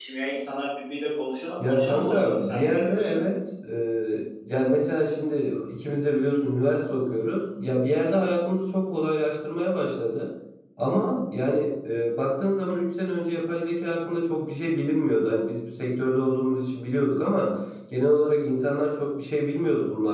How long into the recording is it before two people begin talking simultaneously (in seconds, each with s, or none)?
1.6 s